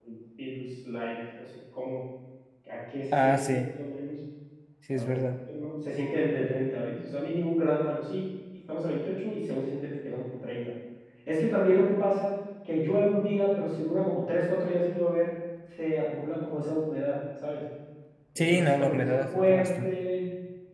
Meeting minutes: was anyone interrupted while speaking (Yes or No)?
Yes